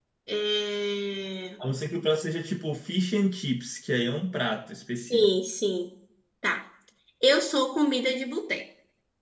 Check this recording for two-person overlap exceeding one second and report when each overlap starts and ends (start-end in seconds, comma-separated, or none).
none